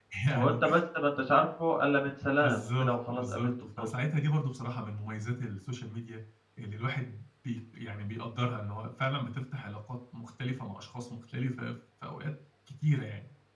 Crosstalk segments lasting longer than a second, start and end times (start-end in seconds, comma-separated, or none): 2.4-3.8